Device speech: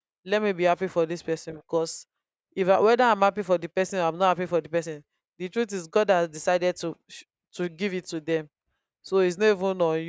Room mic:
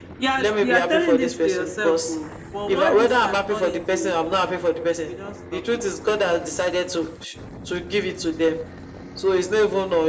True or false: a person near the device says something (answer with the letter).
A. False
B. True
B